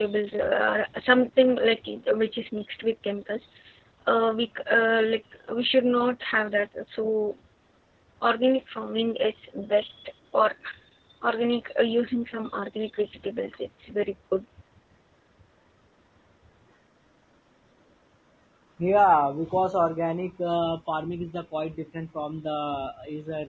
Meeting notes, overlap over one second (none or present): none